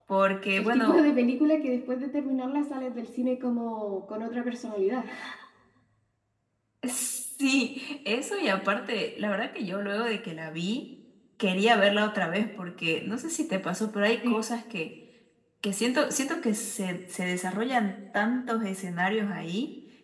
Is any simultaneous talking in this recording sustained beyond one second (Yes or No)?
No